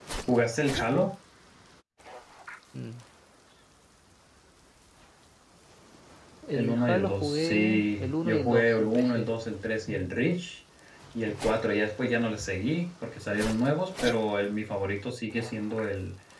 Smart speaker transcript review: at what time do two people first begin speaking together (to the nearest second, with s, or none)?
7 s